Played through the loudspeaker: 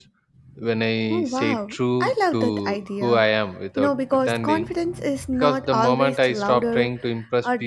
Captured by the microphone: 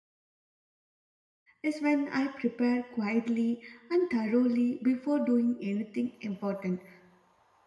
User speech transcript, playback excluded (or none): is when I prepare quietly and thoroughly before doing anything important